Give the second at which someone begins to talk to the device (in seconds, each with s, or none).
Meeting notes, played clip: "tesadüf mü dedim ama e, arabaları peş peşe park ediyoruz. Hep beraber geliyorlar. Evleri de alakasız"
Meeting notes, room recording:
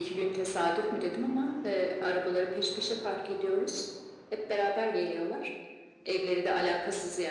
none